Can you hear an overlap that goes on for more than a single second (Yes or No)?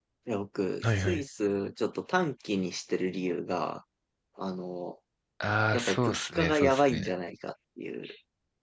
Yes